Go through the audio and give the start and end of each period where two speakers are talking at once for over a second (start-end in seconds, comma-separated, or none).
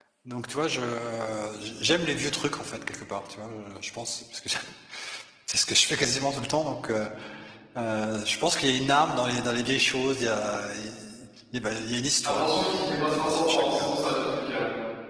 12.2-13.9